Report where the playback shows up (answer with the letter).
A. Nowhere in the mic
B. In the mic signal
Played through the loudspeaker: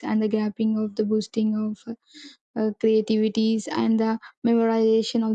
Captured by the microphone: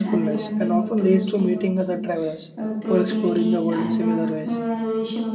B